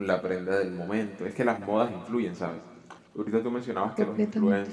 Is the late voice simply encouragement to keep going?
Yes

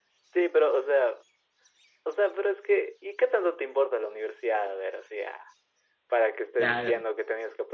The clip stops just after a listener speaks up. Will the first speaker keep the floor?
Yes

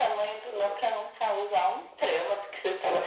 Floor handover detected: No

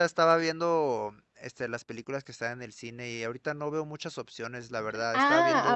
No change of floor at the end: No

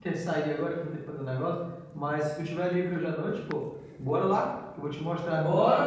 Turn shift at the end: Yes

